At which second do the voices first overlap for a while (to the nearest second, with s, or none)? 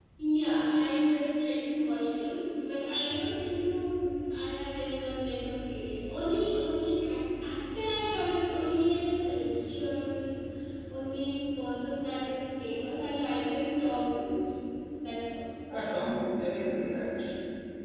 none